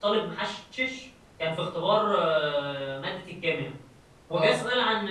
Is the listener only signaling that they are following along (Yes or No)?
Yes